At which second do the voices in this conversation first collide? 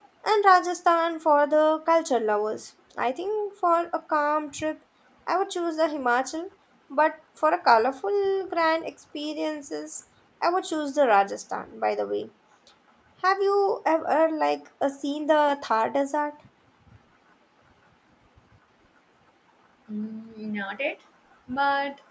none

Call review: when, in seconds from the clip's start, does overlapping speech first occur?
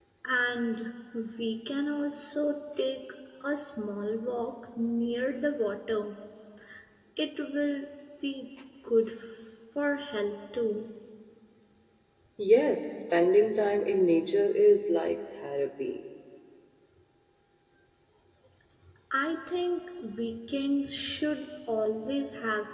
none

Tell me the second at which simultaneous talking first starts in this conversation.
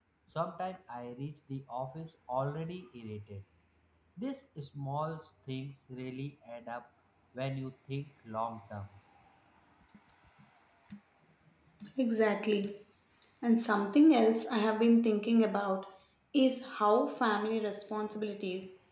none

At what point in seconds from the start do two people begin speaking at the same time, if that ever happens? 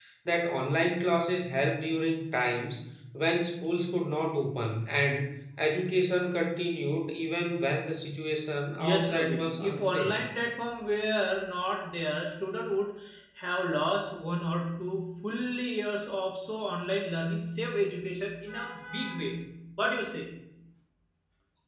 8.8 s

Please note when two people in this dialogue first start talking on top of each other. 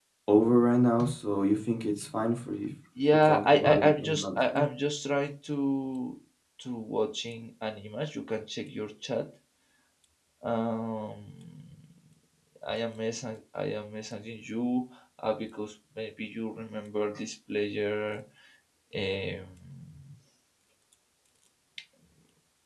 3.0 s

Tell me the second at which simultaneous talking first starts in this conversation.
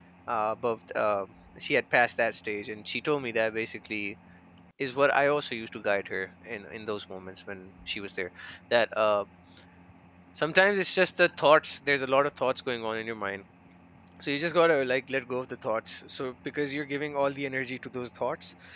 none

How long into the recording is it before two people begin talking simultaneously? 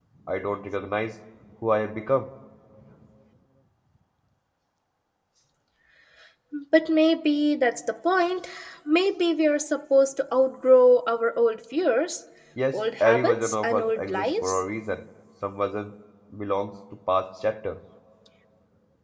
12.7 s

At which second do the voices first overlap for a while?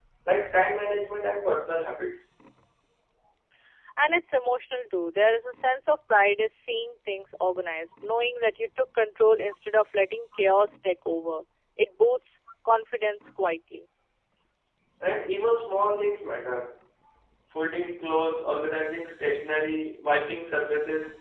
none

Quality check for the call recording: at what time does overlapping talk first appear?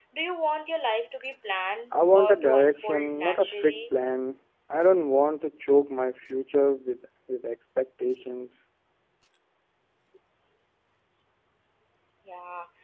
1.9 s

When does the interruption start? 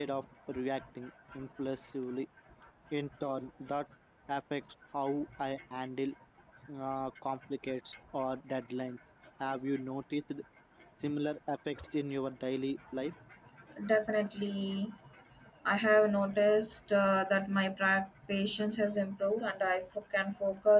none

